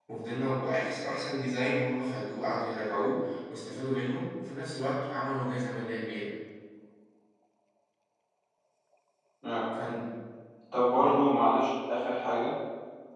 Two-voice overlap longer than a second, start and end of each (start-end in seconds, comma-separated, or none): none